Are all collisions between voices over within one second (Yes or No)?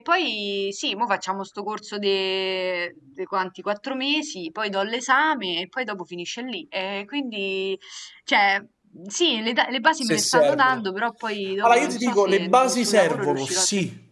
No